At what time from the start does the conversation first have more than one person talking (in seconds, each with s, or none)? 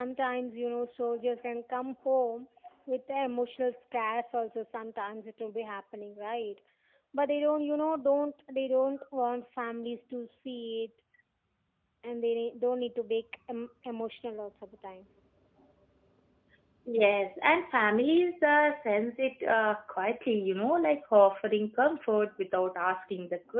none